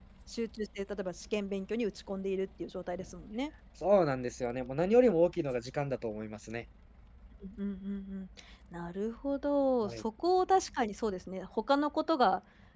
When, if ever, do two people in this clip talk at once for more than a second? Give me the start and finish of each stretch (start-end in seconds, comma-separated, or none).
none